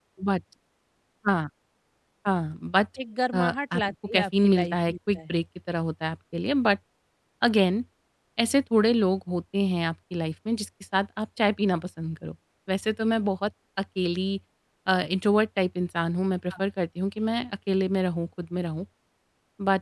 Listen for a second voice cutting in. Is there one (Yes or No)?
Yes